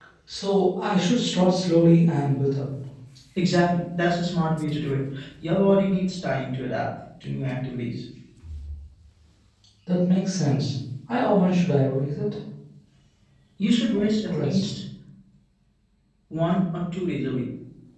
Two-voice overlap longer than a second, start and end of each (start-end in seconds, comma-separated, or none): none